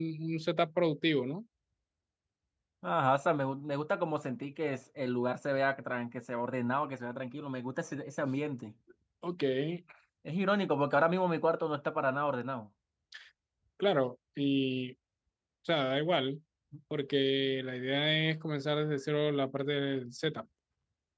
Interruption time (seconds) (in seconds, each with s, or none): none